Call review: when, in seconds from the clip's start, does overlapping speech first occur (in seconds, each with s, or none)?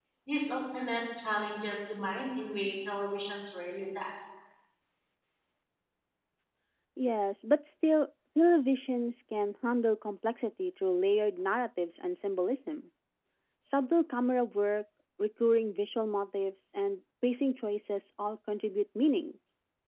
none